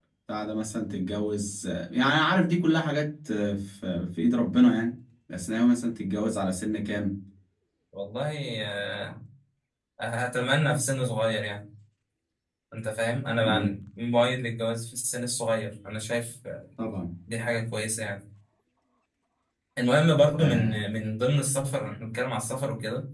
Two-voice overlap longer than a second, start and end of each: none

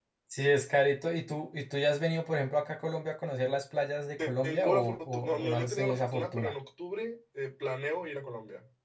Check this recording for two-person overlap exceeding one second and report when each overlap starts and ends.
4.4-6.5

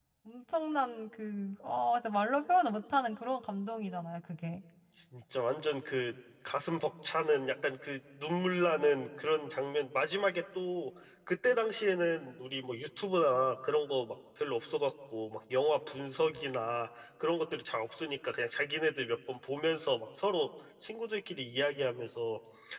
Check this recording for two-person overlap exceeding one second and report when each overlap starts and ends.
none

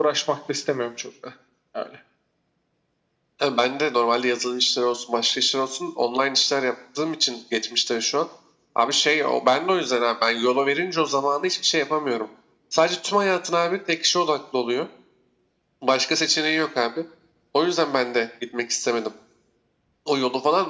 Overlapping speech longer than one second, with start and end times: none

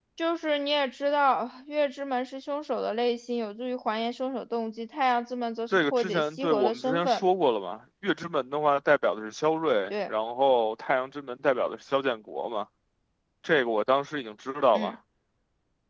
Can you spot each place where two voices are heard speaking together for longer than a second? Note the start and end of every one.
5.7-7.2

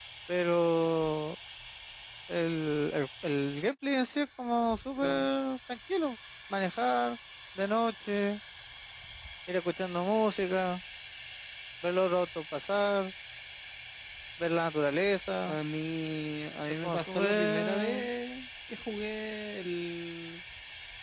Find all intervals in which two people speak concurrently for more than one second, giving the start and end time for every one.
16.8-18.1

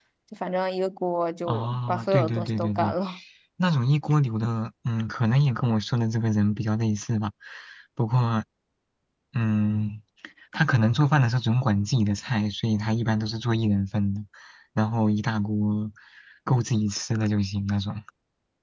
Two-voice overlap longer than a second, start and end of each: 1.4-2.9

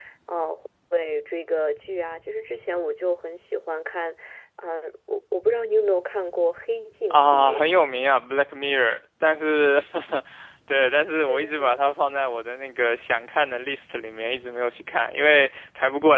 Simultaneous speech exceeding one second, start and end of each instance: none

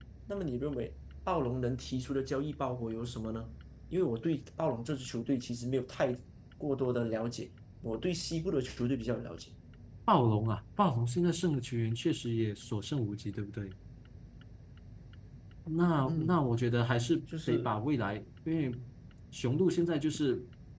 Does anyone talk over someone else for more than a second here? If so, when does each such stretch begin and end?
none

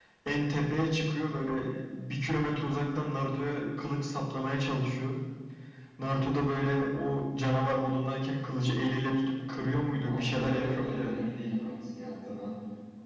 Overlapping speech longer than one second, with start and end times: 10.0-11.3

